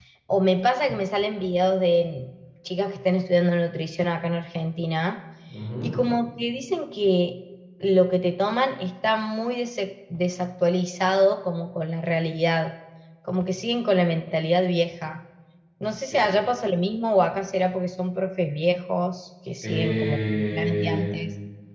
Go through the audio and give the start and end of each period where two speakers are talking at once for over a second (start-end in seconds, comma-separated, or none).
19.6-21.1